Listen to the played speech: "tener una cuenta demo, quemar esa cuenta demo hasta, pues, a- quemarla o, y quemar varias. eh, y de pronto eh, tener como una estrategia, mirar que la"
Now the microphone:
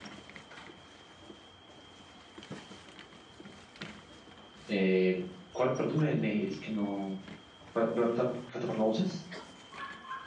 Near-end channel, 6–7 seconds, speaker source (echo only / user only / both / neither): user only